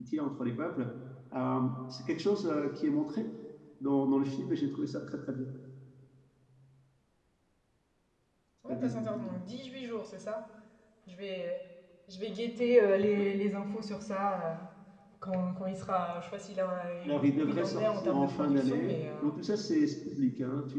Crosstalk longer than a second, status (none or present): present